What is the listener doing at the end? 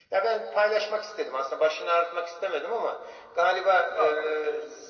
listening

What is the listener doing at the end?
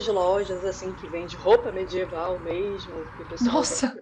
listening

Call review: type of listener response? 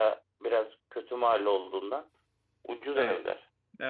taking over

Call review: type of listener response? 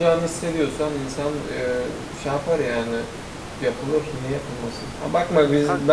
listening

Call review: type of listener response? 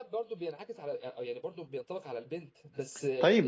taking over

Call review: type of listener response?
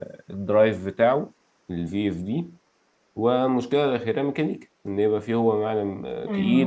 taking over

